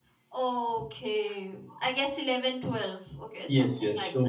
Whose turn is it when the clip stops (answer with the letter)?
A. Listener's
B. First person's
A